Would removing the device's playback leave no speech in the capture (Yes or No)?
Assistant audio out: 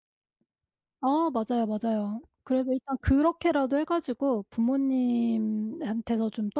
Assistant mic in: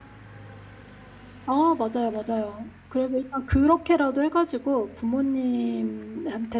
Yes